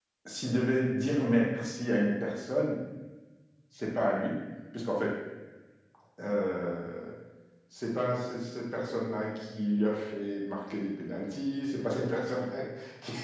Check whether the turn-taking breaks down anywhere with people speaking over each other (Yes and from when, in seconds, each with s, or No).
No